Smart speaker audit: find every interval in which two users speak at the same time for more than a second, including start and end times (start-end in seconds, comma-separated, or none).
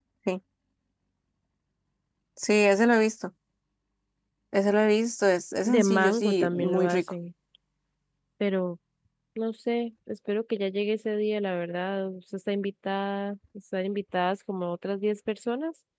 5.7-7.1